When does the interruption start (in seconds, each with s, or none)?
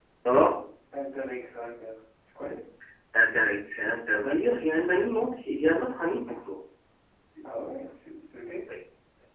none